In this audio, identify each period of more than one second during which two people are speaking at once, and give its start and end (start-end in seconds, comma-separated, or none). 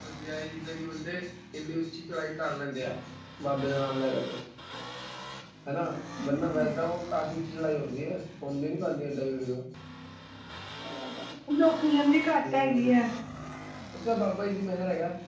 none